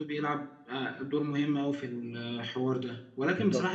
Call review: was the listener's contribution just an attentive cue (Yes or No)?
Yes